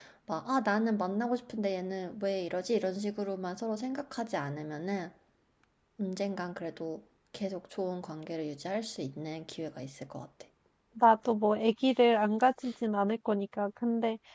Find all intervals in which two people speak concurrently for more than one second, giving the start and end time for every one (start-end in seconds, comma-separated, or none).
none